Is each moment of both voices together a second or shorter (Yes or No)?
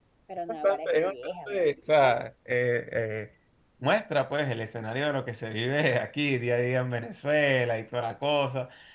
No